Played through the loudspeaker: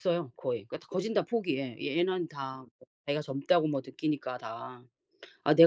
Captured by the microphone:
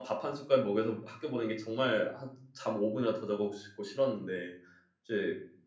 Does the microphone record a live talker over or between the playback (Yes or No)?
Yes